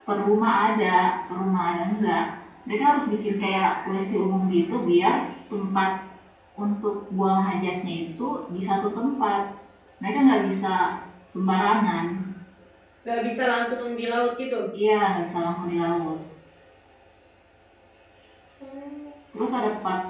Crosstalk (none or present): none